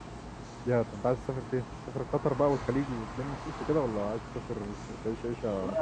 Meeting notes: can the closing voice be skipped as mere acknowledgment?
No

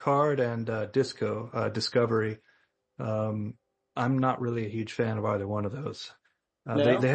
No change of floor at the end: Yes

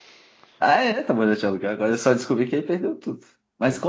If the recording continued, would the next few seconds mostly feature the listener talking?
No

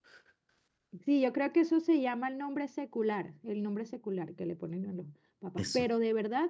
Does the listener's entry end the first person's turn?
No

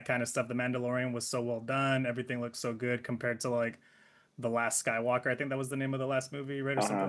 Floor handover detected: Yes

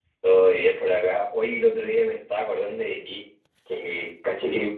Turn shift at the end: No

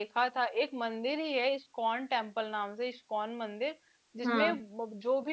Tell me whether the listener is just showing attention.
Yes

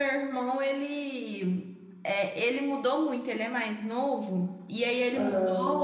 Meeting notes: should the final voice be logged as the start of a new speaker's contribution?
No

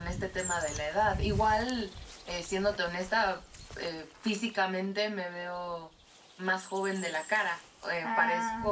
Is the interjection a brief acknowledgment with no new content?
Yes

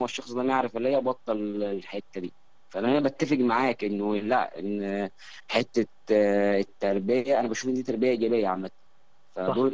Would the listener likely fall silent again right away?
Yes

